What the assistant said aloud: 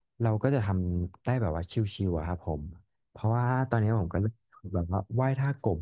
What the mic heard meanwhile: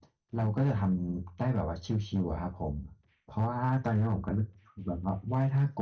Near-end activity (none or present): none